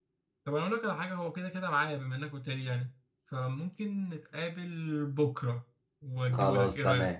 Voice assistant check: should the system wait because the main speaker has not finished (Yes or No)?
No